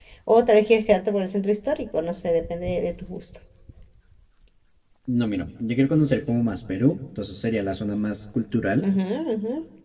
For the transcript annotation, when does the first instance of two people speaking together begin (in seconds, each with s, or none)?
none